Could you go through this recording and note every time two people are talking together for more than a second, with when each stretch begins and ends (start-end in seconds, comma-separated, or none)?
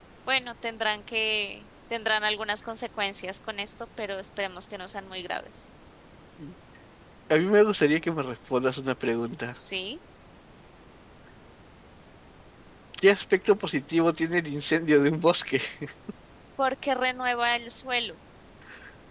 none